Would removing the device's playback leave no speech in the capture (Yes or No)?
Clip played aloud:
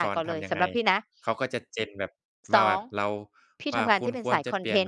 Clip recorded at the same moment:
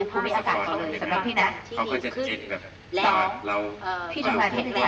No